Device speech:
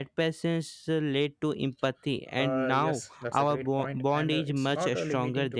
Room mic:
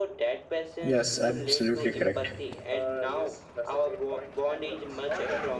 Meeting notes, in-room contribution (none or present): present